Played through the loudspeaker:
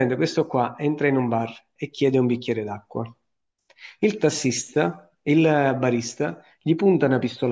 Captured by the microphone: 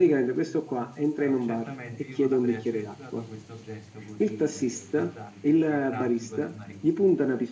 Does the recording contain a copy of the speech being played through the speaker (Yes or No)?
Yes